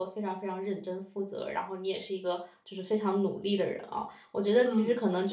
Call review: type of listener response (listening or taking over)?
listening